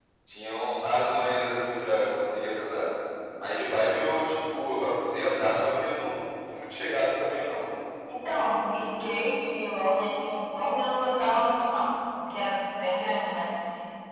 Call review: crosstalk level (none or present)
none